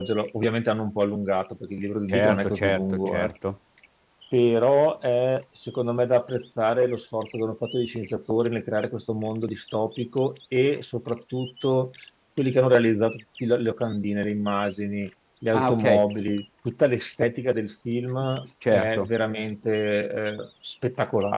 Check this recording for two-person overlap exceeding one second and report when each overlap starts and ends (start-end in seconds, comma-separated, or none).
2.1-3.3